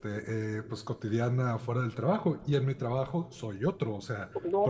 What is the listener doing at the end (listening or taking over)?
taking over